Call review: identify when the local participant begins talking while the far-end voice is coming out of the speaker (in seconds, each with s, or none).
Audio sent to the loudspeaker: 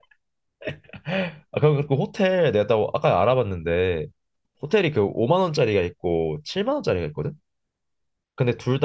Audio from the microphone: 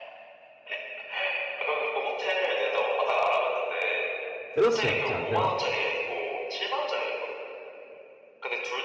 4.5 s